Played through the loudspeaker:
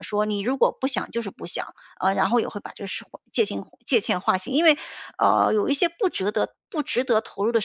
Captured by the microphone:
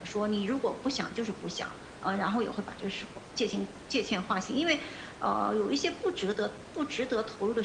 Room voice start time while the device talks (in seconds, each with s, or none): none